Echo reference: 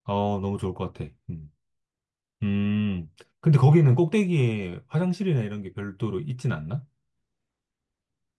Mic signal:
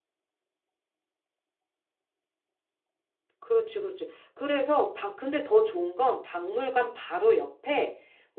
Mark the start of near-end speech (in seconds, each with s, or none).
3.4 s